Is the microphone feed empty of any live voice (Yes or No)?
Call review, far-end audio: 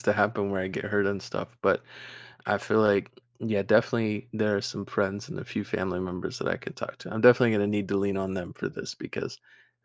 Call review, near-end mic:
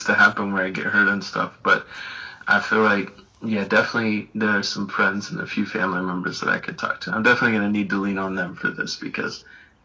Yes